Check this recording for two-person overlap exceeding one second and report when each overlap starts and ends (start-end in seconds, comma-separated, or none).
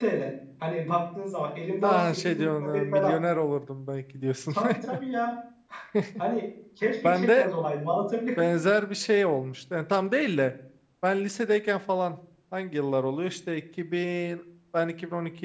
1.8-3.1